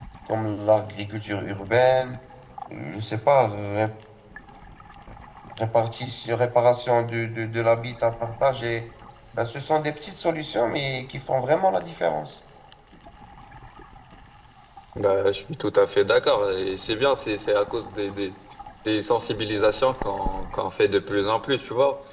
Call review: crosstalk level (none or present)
none